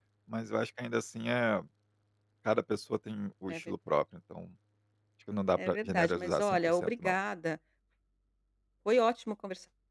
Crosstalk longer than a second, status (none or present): present